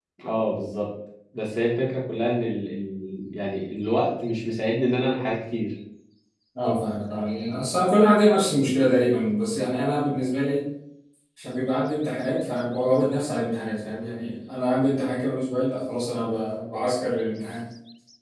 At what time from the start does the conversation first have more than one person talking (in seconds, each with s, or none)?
none